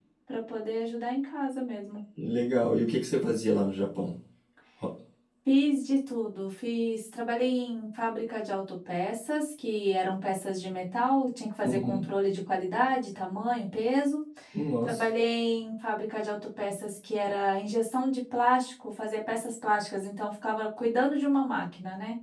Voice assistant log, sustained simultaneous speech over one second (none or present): none